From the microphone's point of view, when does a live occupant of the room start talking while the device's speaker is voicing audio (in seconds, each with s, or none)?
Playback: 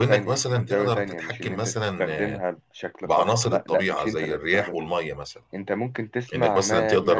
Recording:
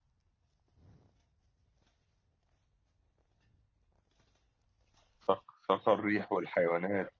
5.2 s